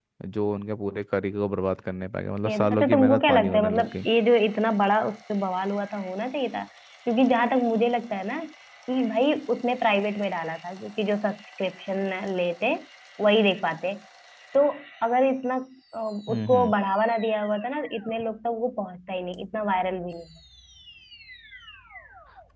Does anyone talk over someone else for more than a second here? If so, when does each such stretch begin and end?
2.4-4.1

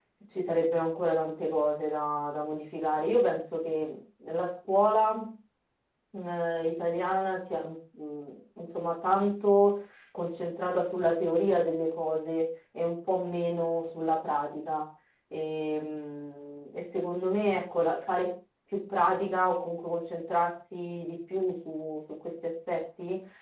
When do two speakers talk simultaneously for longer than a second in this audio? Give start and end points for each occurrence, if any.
none

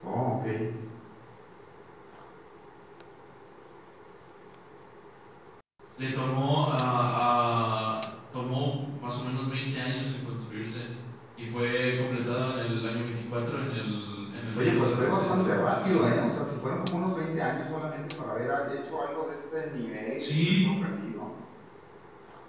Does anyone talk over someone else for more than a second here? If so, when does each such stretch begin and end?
14.5-16.2

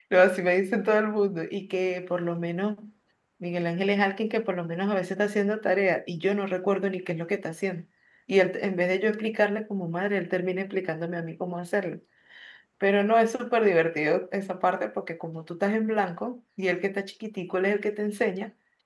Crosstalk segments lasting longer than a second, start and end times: none

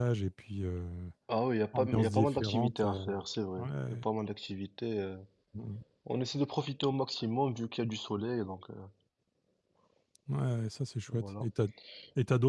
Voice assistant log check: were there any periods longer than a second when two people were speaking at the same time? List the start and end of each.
1.7-3.0

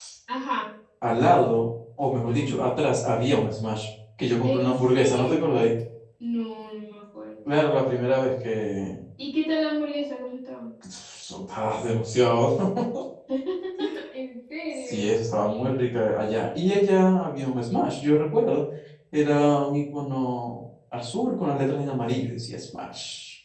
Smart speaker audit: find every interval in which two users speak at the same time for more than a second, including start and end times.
4.4-5.7

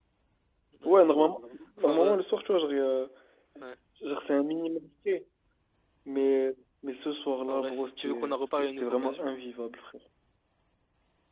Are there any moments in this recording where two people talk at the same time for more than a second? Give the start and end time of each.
7.5-9.3

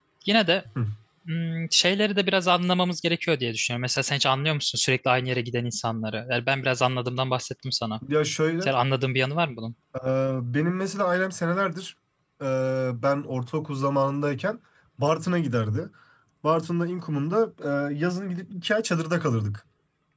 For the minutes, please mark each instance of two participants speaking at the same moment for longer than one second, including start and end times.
none

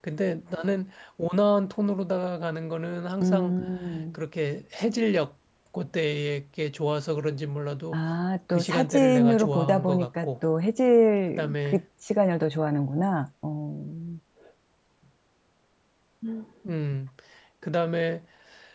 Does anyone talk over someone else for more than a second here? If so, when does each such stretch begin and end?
8.5-10.3

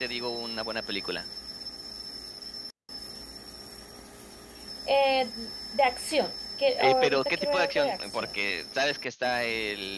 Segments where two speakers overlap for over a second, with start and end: 6.8-8.3

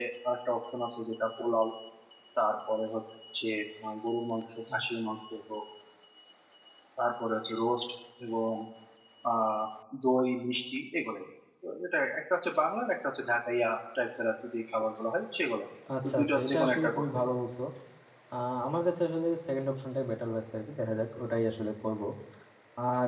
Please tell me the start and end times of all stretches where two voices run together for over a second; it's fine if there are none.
16.1-17.4

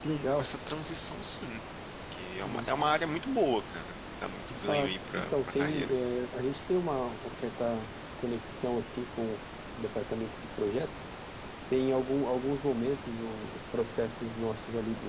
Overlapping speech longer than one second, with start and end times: 4.5-6.0

